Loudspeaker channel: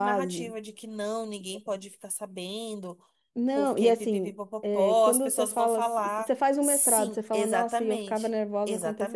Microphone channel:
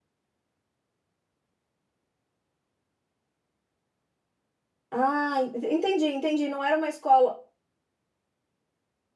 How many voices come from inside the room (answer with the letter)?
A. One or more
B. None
A